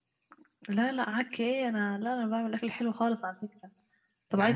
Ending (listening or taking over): listening